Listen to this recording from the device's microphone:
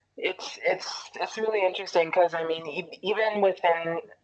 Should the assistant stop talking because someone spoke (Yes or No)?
No